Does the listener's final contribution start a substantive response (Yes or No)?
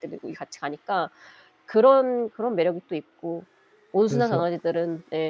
No